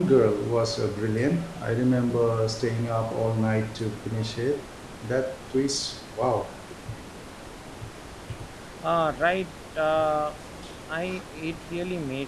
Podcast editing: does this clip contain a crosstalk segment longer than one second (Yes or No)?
No